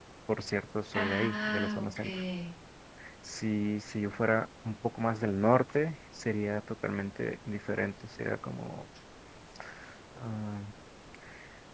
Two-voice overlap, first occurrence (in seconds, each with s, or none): 0.9 s